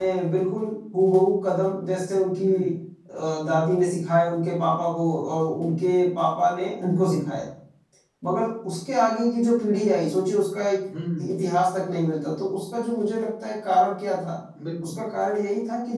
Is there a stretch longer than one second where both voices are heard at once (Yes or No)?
No